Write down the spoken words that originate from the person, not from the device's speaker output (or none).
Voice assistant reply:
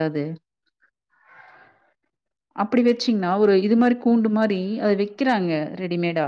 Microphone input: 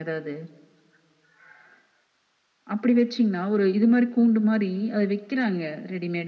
none